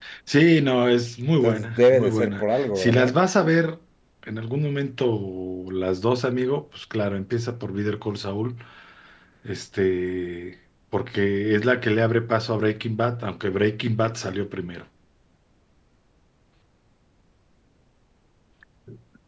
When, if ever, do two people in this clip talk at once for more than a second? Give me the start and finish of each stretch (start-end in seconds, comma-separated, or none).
1.4-3.1